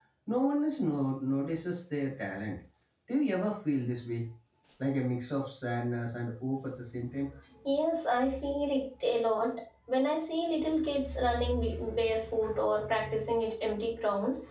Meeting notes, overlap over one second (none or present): none